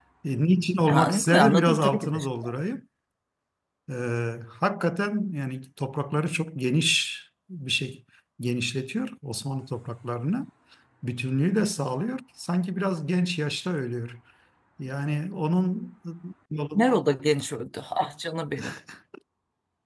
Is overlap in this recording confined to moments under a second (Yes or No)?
No